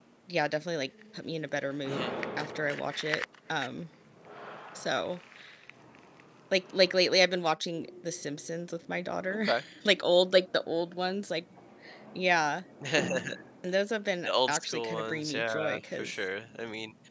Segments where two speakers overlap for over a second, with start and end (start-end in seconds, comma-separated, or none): 14.3-16.2